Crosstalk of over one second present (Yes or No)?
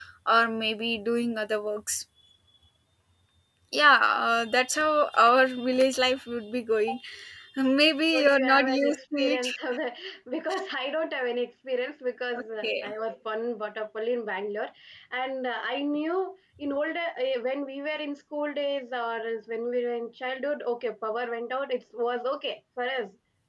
Yes